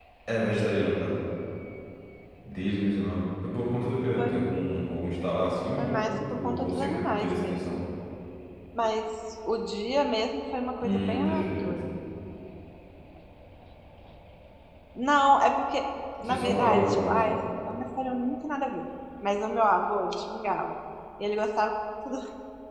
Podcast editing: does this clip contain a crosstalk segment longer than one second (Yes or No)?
Yes